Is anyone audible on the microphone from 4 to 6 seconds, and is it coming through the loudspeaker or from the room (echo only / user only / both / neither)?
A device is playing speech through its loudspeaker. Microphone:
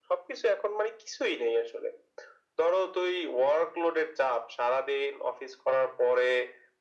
echo only